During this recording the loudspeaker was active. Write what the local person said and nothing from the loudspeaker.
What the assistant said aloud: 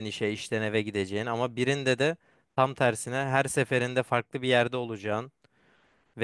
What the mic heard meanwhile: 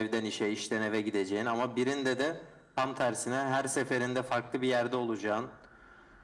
none

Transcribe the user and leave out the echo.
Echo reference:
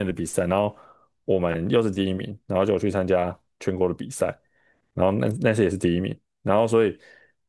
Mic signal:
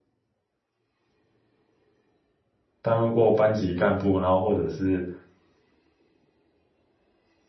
担任过班级干部，然后或者是。

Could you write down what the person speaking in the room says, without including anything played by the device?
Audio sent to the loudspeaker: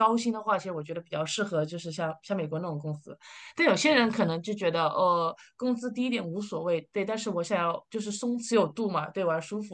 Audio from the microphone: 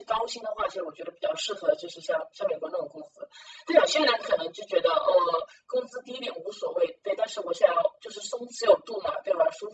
none

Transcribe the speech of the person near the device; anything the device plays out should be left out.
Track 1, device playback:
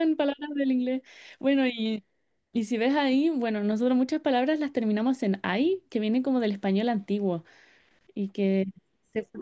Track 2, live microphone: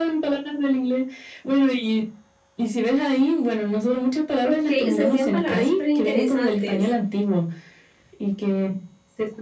ok. Ustedes tienen palabras súper interesantes.

